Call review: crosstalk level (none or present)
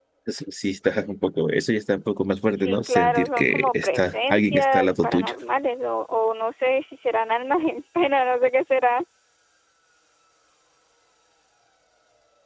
present